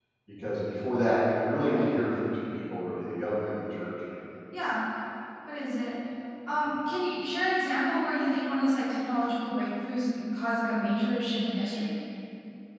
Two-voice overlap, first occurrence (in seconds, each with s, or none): none